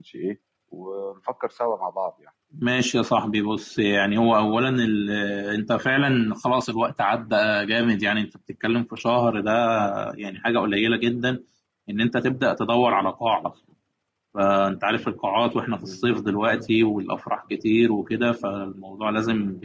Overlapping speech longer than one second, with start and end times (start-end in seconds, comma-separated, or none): none